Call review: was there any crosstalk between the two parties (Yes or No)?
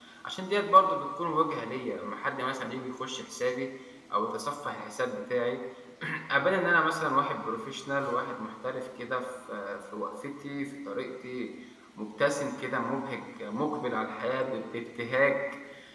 No